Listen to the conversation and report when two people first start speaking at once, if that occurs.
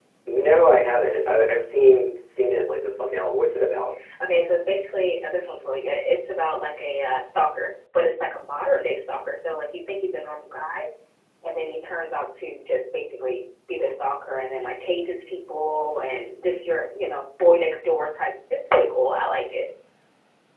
none

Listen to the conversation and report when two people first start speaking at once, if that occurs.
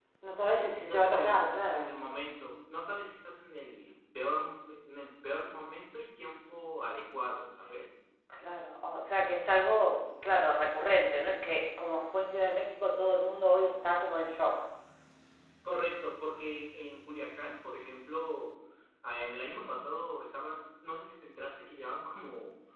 1 s

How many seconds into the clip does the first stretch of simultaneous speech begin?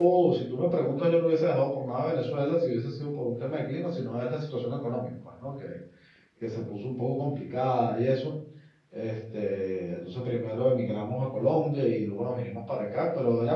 none

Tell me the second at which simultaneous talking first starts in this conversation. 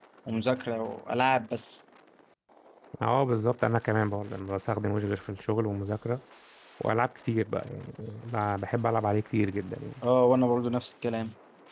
none

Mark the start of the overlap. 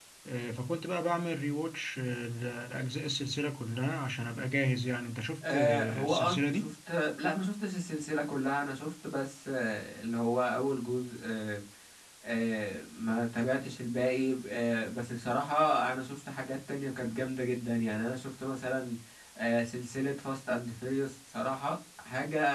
5 s

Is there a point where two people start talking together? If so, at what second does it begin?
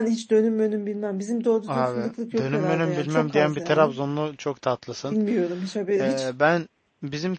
2 s

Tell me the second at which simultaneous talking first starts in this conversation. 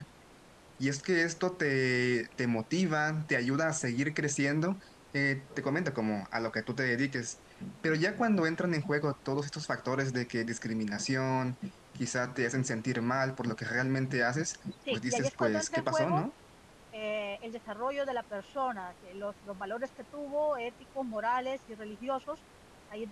15 s

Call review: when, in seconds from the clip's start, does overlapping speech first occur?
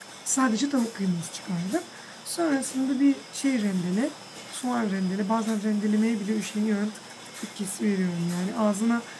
none

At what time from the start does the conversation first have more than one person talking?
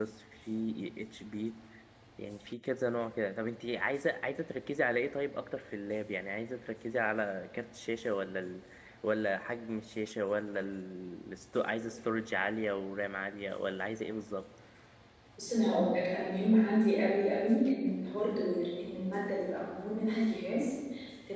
none

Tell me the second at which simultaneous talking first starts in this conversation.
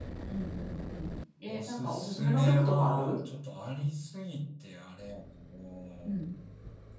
1 s

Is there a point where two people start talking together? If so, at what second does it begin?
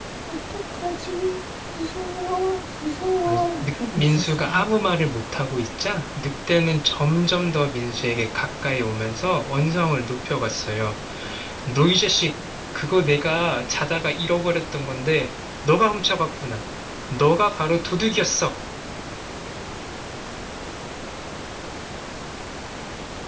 3 s

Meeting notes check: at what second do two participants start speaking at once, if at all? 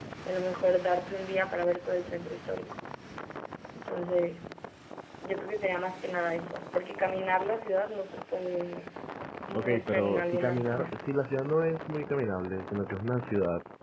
10 s

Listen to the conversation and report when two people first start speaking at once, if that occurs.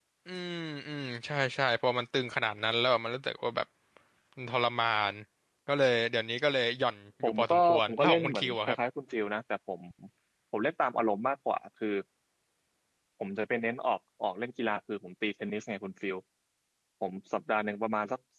7 s

